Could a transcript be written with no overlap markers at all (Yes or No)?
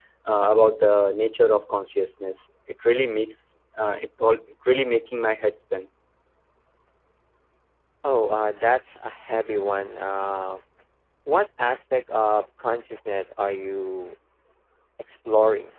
Yes